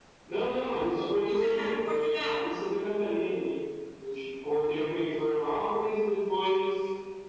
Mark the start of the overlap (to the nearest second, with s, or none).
1 s